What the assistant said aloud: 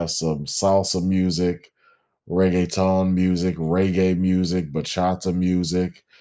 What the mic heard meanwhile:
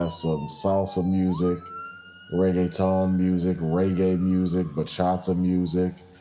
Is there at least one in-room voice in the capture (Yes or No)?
No